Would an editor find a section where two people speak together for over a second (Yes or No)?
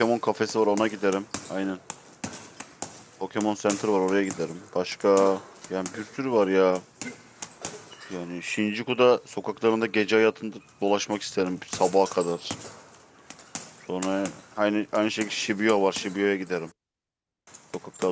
No